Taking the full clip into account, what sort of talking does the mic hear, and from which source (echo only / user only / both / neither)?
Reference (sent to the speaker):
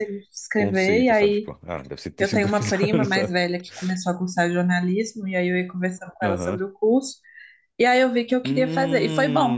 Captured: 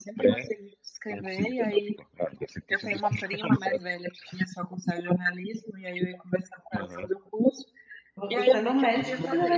both